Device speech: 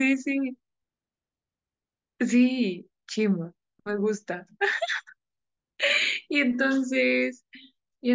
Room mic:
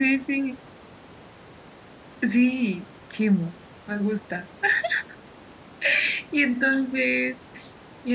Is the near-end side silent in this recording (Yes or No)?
Yes